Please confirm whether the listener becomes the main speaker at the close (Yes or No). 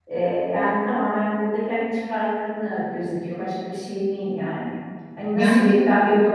No